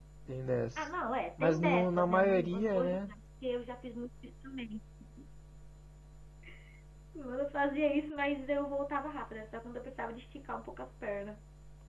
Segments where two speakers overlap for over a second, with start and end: 1.4-3.1

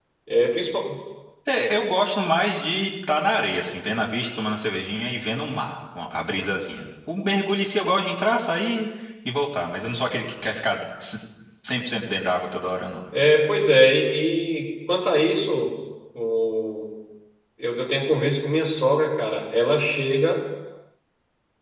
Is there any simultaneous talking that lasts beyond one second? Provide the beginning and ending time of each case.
none

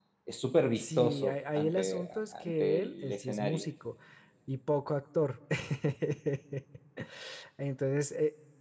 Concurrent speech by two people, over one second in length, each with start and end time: 0.7-3.7

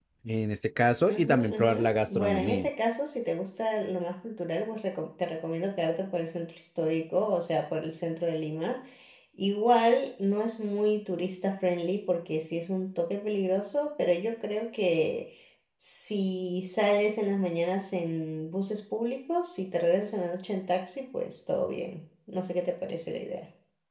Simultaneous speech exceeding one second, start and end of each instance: 1.1-2.7

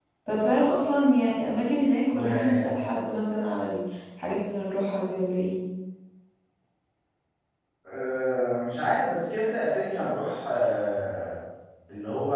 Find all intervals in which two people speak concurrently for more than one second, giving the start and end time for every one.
none

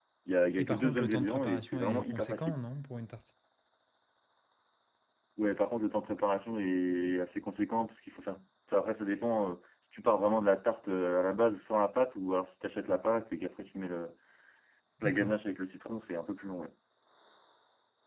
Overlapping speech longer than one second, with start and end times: 0.6-2.6

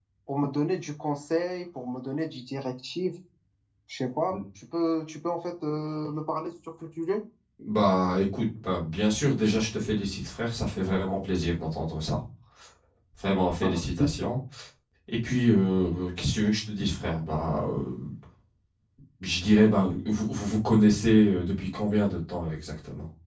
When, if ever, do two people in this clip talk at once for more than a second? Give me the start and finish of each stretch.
none

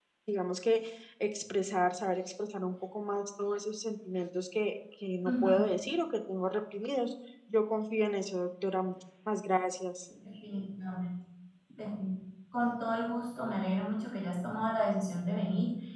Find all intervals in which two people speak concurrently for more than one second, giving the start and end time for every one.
none

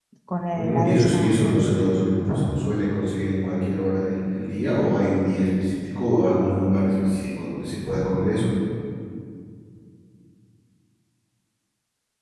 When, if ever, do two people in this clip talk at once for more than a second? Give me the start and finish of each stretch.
0.5-1.8

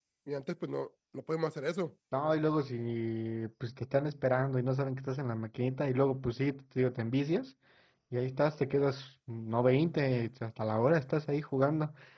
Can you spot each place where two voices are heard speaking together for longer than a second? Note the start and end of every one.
none

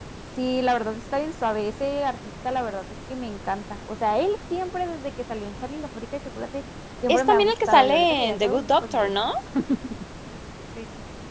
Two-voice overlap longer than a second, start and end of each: 7.1-9.3

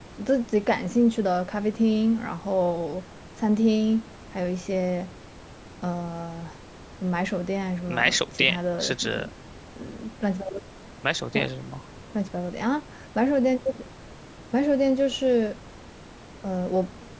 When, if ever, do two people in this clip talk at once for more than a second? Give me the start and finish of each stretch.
7.9-9.1

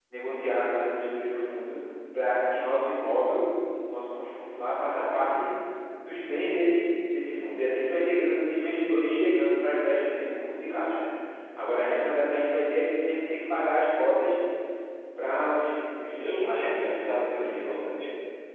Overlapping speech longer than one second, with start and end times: 16.4-17.8

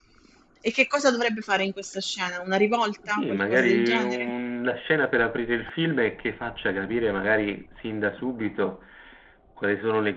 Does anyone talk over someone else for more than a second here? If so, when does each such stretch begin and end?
3.1-4.3

